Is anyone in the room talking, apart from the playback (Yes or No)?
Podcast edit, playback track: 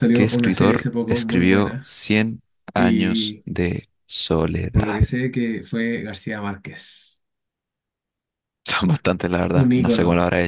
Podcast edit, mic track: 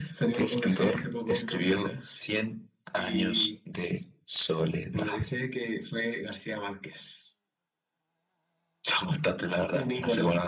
No